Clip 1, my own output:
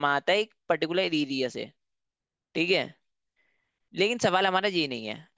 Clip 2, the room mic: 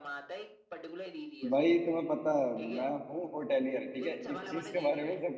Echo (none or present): present